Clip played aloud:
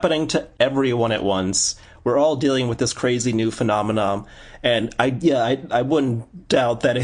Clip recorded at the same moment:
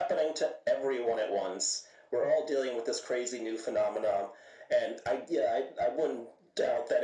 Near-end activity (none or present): none